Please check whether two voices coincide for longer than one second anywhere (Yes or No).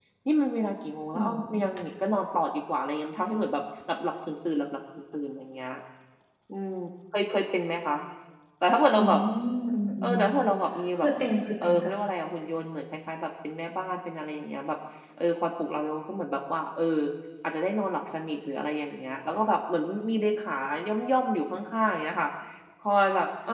No